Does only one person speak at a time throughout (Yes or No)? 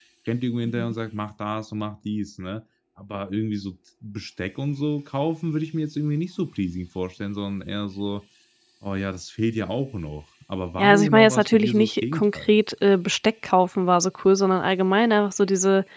No